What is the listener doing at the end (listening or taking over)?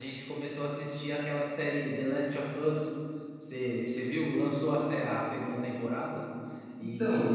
listening